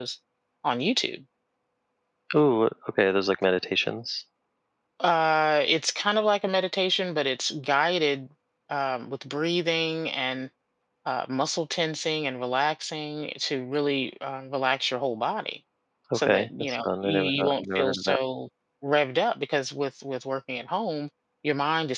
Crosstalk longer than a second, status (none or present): present